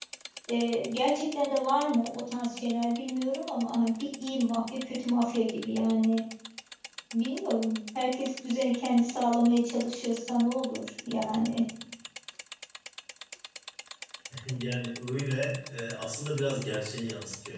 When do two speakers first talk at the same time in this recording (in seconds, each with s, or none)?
none